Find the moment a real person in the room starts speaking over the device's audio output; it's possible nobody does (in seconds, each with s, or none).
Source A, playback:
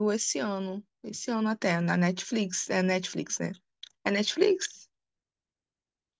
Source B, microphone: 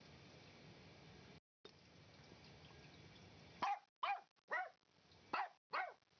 none